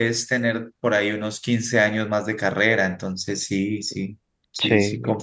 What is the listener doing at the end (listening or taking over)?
taking over